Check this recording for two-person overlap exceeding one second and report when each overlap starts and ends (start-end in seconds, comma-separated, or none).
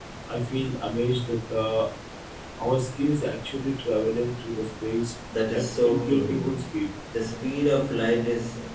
5.5-6.7